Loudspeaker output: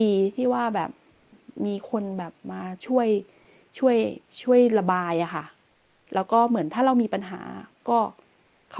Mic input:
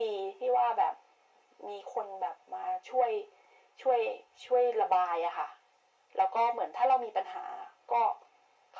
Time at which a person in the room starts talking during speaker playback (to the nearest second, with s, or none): none